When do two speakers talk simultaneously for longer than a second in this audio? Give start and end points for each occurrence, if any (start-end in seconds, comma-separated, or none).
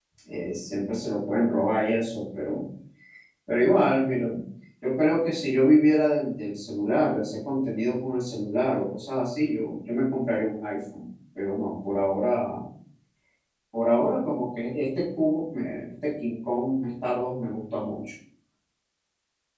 none